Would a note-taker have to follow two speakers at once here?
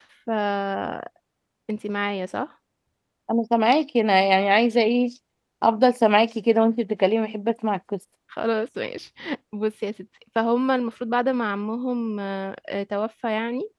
No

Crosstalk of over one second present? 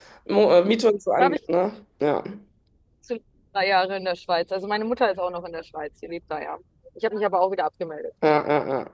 No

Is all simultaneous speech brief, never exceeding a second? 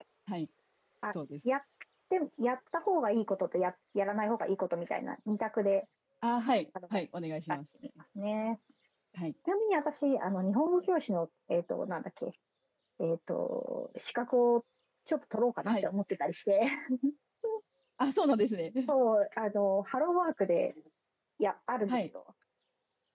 Yes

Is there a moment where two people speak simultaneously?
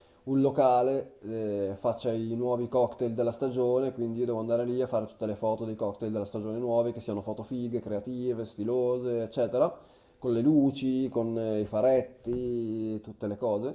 No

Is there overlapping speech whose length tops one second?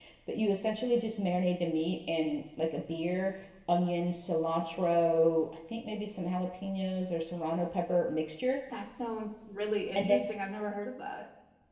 No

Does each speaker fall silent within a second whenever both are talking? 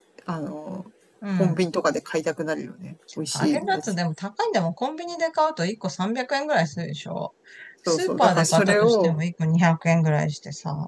No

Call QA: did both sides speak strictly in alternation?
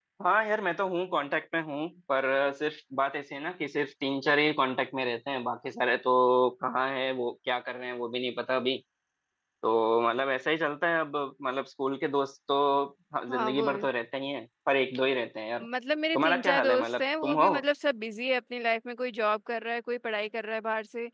No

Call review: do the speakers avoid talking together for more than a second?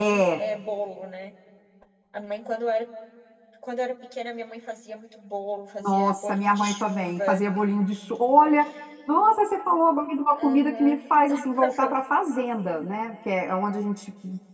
No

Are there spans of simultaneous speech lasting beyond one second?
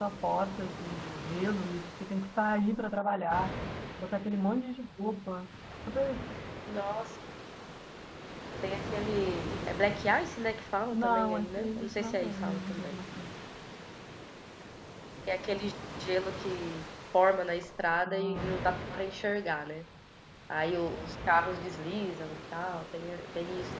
Yes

